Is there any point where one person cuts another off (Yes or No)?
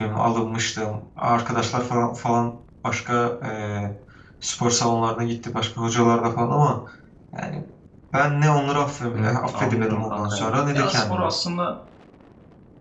Yes